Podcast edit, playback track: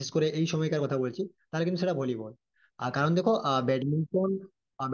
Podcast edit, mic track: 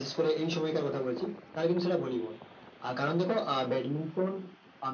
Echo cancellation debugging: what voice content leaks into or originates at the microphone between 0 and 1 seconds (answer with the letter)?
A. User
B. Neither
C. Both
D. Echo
D